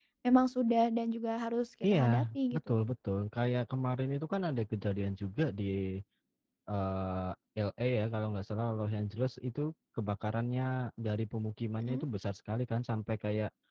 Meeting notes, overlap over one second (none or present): none